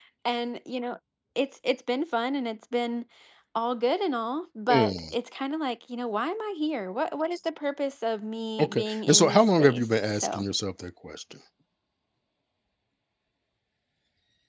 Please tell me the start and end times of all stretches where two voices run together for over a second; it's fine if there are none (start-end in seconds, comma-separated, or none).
8.6-10.4